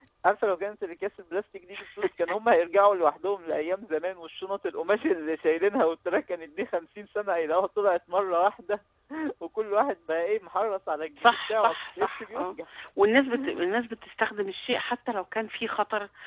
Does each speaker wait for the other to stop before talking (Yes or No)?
No